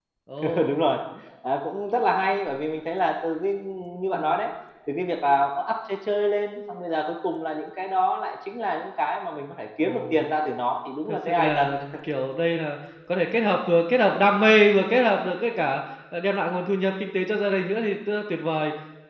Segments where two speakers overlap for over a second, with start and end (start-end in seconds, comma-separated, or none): none